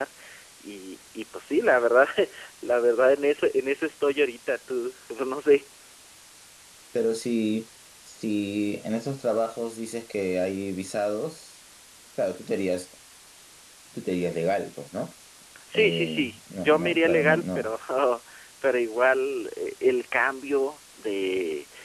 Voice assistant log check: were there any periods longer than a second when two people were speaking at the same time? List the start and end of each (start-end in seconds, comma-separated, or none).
15.7-17.7